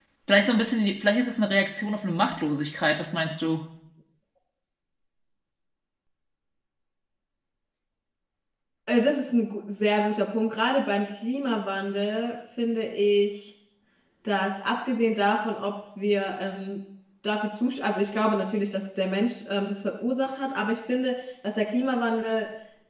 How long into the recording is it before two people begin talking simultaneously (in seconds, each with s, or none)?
none